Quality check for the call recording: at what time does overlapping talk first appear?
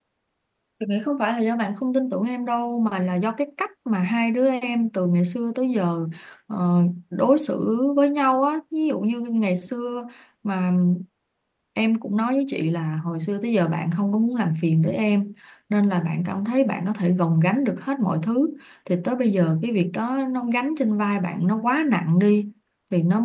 none

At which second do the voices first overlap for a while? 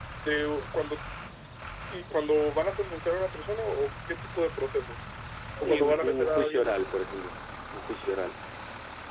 5.6 s

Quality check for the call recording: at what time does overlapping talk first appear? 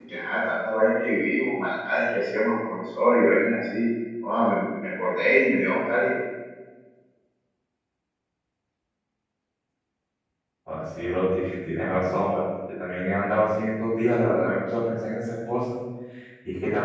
none

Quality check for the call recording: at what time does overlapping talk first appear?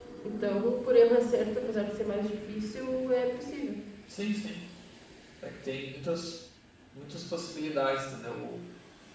none

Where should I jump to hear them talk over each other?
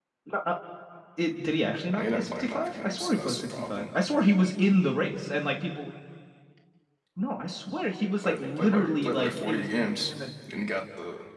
2.0 s

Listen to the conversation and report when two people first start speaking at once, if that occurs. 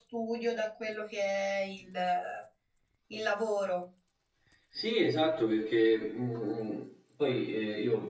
none

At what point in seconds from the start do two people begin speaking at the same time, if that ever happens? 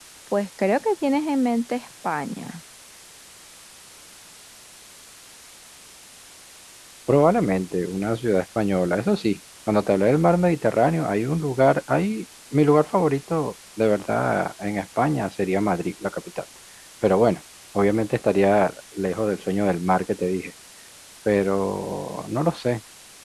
none

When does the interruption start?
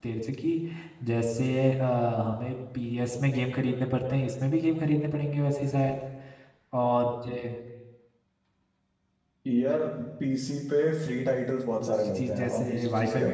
11.7 s

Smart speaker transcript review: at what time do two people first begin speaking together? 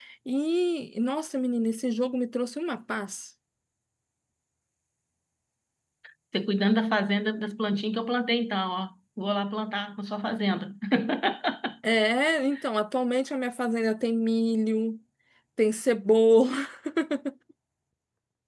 none

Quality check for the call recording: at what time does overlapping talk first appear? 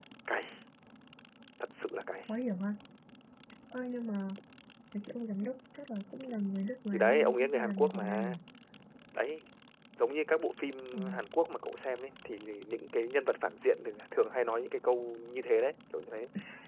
6.9 s

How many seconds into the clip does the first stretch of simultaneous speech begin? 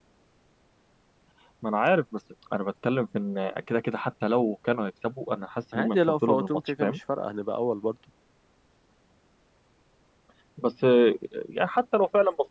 5.7 s

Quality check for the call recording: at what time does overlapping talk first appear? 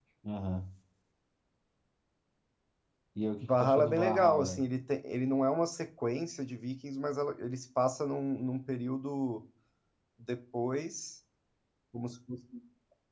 3.4 s

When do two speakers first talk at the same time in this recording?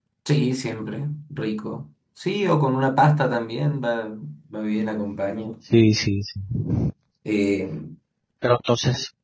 none

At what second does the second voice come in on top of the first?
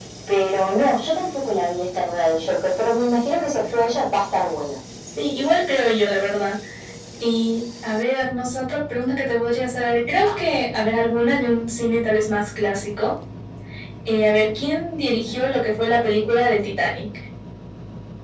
none

